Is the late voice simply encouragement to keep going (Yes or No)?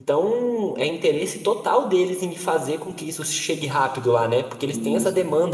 Yes